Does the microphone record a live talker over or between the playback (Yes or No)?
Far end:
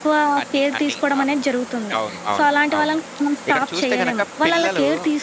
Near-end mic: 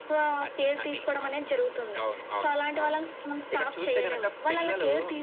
No